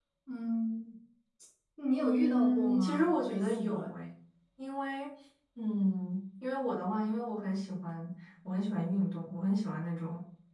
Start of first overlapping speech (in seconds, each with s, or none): 2.0 s